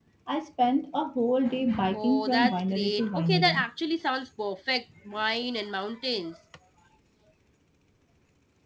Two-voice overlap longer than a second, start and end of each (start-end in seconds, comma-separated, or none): 1.9-3.6